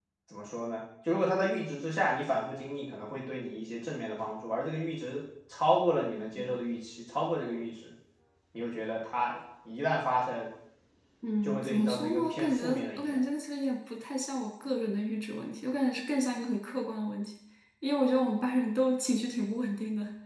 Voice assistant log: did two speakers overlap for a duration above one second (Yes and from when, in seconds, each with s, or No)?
Yes, from 11.4 s